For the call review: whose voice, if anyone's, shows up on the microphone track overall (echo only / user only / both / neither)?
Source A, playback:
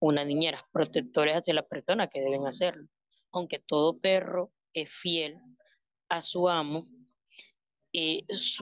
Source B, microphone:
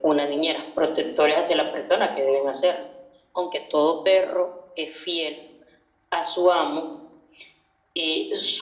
echo only